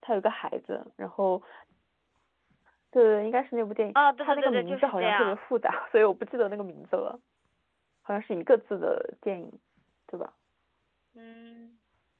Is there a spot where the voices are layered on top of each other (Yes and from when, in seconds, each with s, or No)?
Yes, from 4.0 s